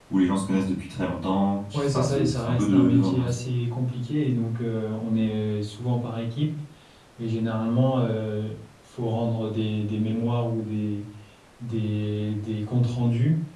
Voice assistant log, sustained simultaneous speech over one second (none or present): present